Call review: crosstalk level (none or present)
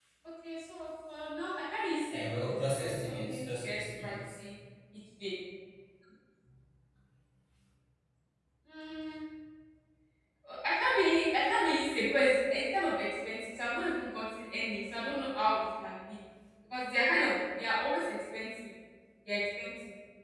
present